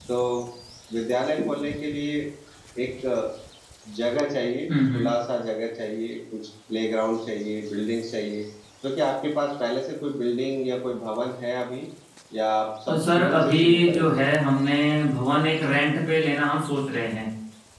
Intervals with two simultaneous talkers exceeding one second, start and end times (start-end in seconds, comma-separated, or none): 13.0-14.2